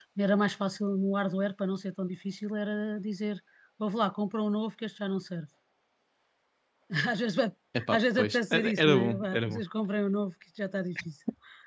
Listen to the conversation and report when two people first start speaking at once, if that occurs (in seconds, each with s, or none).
7.9 s